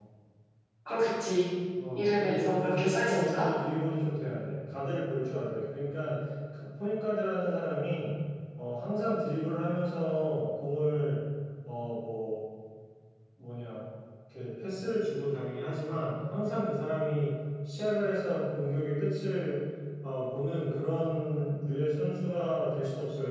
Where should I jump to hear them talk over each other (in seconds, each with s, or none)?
1.8 s